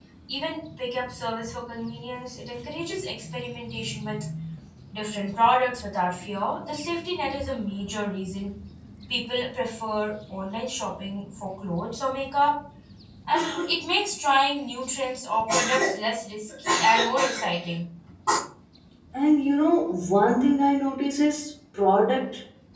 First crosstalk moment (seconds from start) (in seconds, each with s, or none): none